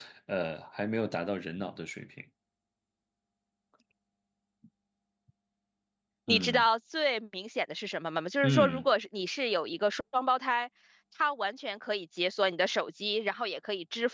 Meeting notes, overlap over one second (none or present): none